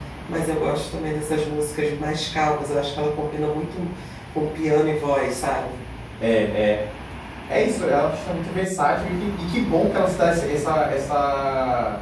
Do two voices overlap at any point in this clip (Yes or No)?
No